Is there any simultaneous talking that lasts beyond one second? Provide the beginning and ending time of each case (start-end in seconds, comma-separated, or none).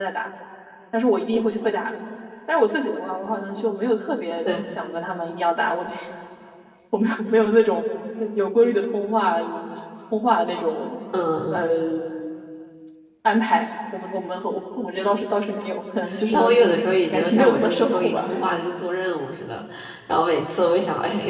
17.1-18.4